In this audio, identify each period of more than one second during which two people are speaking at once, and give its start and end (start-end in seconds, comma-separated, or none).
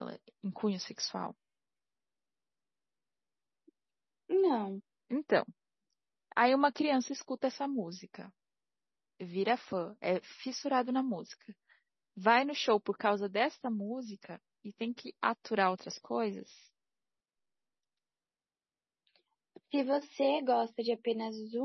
none